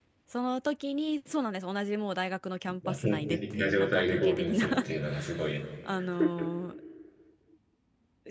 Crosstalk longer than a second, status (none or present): present